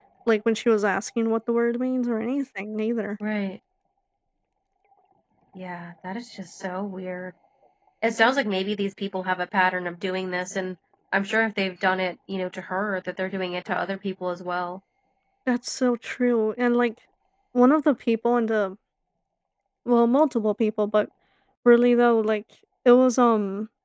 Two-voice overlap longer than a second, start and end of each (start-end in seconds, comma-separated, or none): none